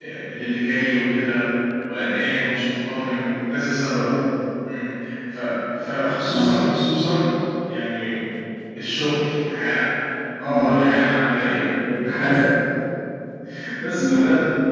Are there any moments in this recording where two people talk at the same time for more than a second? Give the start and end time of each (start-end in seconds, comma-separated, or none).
none